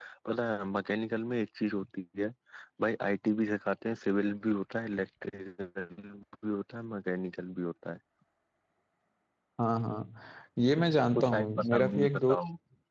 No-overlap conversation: No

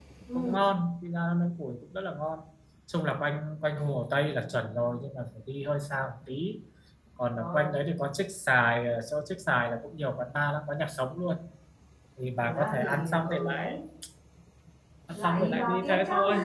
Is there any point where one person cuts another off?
Yes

